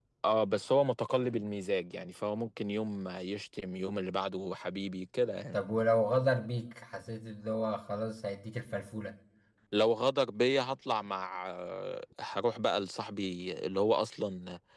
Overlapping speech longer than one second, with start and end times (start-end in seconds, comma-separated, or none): none